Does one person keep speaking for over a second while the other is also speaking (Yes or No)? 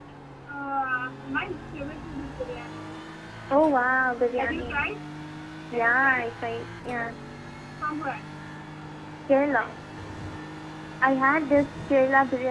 No